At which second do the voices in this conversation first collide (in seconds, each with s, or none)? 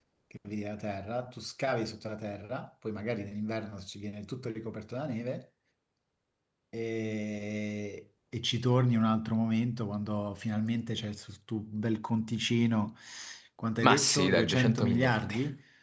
13.8 s